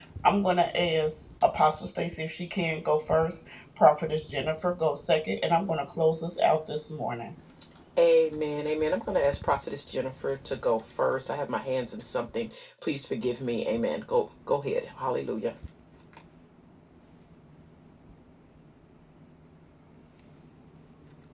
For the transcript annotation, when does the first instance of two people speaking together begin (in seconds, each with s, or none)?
none